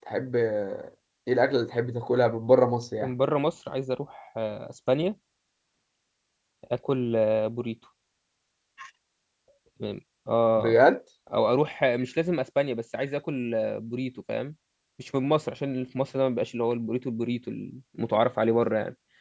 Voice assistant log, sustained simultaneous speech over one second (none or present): none